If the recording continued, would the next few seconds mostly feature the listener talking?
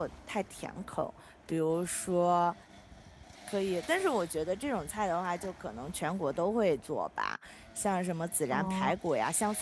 No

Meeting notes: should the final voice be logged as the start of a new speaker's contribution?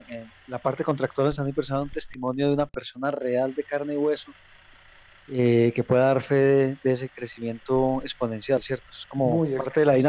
Yes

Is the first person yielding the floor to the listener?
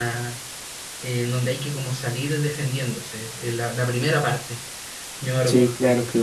Yes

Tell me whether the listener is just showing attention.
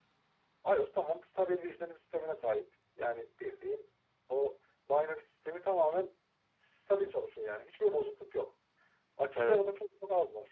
Yes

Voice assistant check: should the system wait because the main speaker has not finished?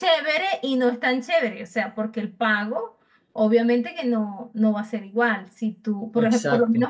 Yes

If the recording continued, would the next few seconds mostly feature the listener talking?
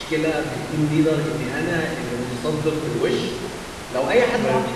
No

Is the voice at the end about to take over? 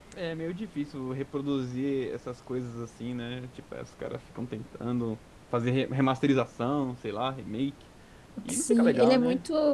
Yes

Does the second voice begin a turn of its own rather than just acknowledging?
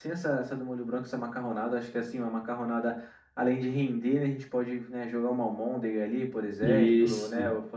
No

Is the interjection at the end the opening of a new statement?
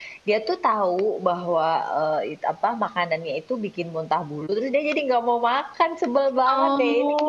Yes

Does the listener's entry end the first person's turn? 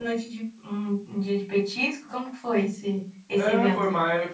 Yes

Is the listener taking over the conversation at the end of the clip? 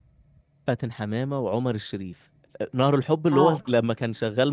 No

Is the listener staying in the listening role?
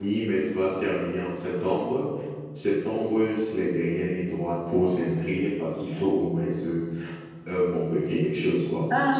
No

